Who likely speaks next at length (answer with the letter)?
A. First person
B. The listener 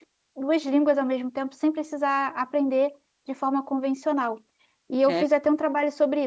A